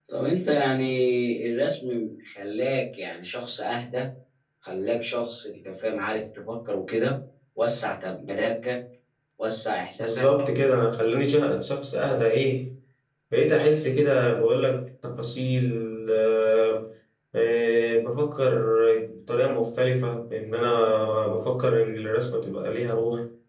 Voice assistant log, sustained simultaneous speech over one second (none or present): none